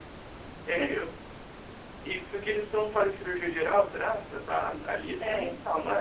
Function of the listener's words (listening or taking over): taking over